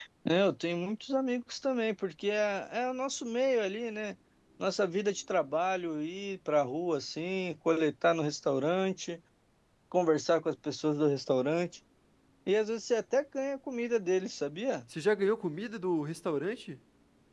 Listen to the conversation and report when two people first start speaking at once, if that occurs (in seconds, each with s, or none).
none